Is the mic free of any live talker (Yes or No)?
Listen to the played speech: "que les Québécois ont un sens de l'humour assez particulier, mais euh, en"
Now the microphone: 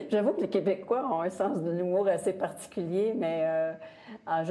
Yes